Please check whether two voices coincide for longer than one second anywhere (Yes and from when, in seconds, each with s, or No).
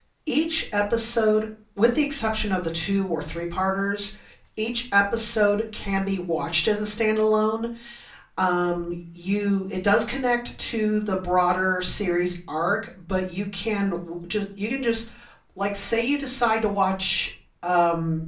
No